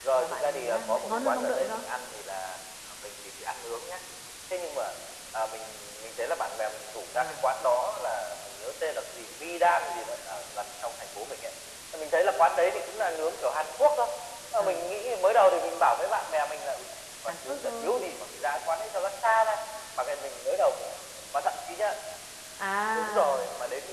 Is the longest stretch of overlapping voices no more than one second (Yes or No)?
No